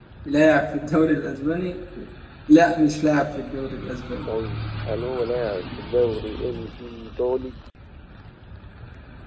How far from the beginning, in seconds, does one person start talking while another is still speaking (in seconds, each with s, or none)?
none